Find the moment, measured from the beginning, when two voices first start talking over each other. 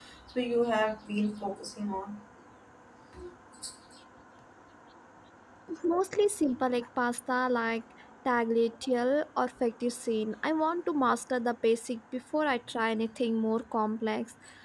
none

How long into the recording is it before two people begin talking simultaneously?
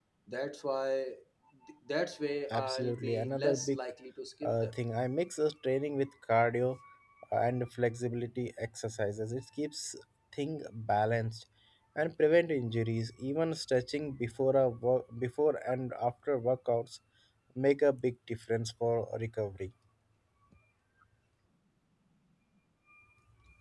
2.5 s

